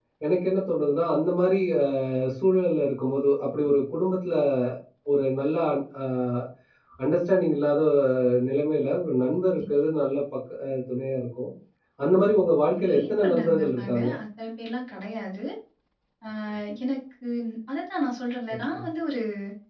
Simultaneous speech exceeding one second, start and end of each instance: 12.7-14.1

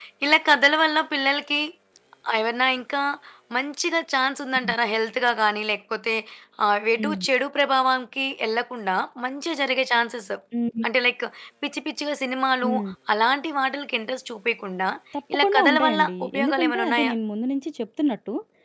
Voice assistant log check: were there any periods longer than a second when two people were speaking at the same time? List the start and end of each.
15.3-17.1

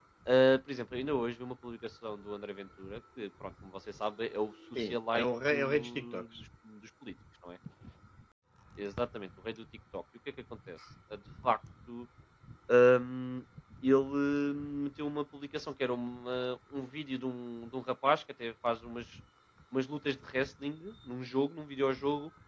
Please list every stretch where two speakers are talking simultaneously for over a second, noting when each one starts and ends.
4.8-6.2

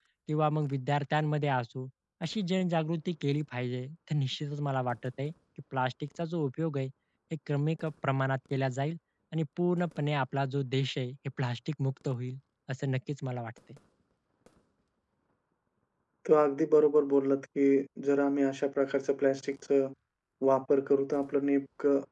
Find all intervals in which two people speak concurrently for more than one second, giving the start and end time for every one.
none

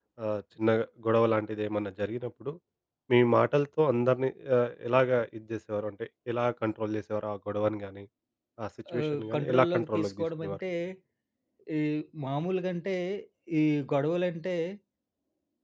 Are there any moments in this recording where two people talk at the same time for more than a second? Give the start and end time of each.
9.0-10.6

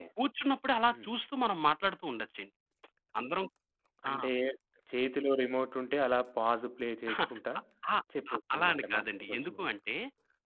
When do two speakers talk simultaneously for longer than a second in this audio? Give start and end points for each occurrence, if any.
8.3-9.7

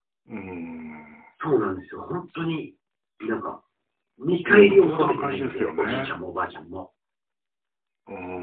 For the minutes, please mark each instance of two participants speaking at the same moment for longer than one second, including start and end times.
4.4-6.1

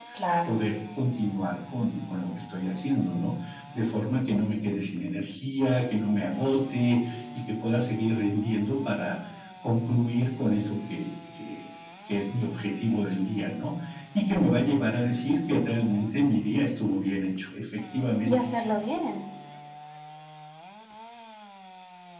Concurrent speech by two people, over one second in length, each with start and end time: none

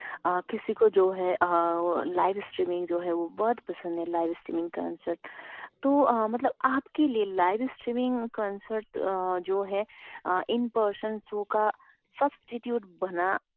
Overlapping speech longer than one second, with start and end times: none

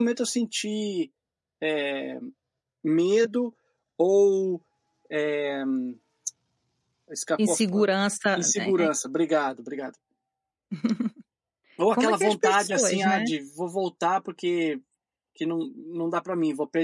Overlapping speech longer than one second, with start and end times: 11.9-13.2

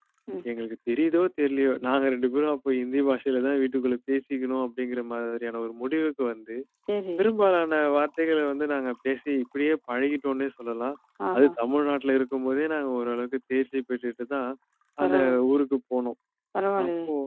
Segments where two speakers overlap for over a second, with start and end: none

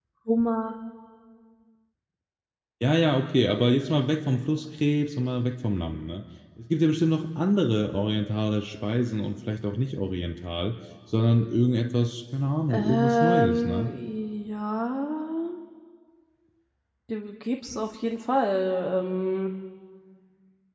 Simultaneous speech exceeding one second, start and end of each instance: 12.7-13.9

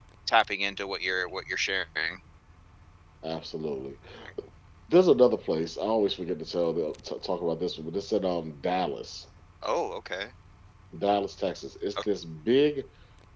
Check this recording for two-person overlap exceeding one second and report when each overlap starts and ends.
none

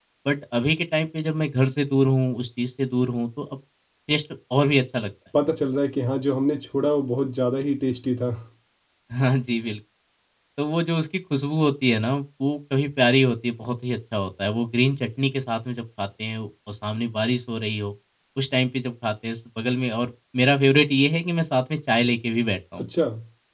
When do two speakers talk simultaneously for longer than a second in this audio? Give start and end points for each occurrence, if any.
none

